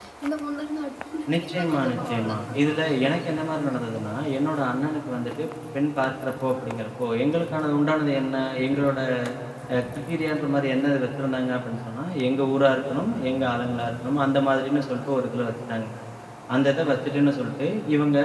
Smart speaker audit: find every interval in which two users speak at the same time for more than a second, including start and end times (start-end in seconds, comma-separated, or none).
1.3-3.8